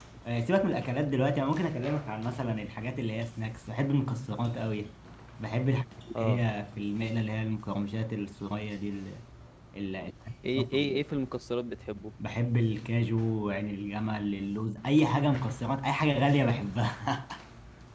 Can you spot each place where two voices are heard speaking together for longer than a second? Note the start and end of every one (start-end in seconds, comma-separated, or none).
none